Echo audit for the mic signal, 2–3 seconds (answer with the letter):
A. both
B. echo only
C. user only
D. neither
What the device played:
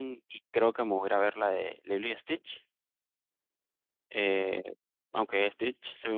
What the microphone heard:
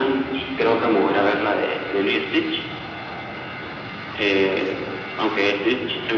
B